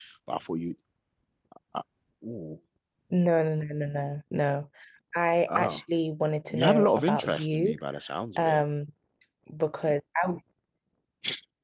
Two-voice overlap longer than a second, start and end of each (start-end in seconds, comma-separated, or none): 6.5-7.8